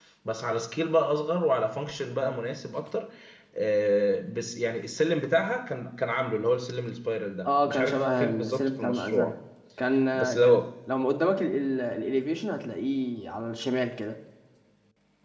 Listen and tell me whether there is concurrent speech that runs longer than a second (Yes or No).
Yes